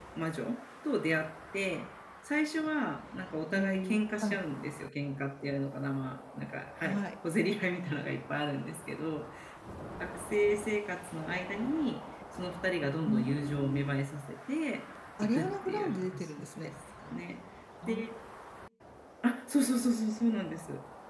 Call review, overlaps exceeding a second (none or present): present